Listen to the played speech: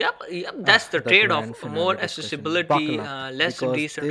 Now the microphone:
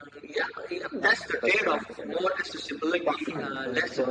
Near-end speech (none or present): present